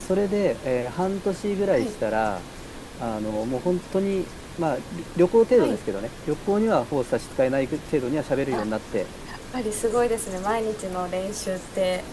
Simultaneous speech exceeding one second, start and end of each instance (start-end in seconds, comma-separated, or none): none